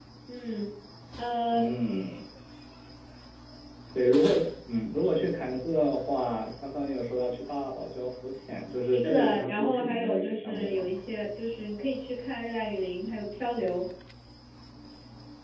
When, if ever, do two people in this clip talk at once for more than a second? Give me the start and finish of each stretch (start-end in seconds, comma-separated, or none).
8.9-10.9